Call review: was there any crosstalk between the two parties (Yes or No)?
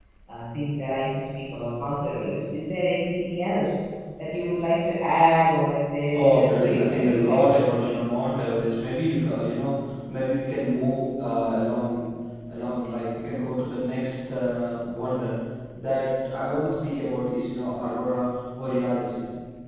Yes